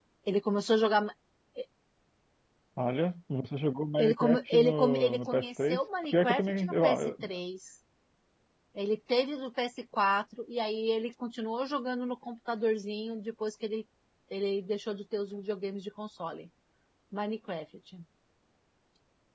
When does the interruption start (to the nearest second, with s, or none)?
4 s